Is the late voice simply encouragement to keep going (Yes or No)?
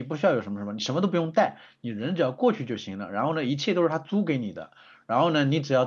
Yes